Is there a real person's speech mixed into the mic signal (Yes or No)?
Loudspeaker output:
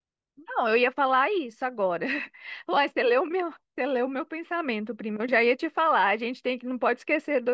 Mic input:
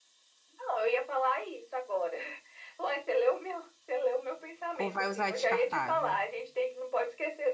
Yes